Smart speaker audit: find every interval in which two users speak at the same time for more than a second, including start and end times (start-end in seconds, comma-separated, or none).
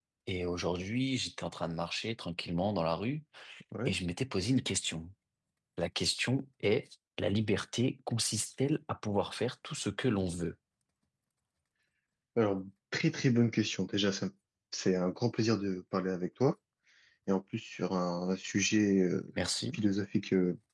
none